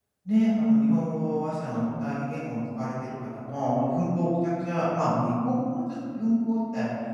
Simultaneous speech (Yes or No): No